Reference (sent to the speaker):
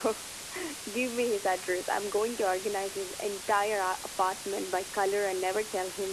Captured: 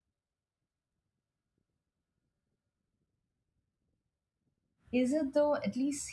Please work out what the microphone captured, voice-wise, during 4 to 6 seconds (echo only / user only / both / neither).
user only